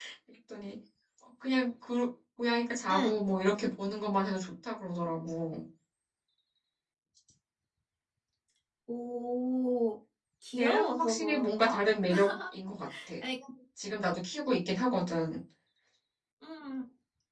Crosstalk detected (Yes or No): Yes